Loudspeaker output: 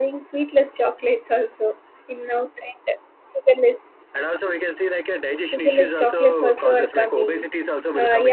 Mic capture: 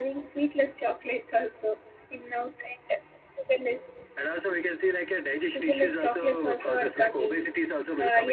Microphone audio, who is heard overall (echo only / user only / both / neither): echo only